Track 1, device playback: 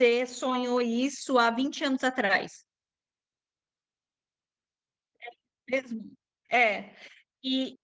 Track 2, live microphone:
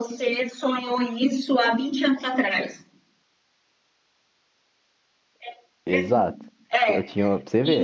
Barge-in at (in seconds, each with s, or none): 5.8 s